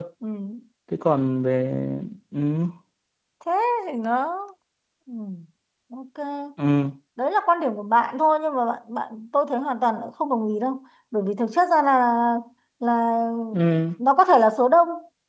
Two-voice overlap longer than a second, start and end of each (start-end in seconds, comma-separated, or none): none